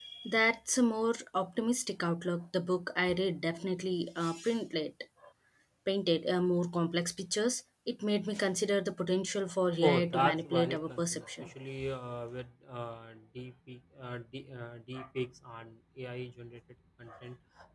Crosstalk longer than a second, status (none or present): present